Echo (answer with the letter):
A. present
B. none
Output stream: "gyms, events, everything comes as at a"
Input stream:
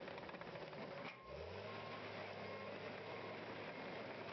B